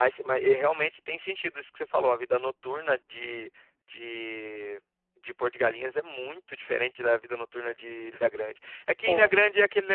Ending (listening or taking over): listening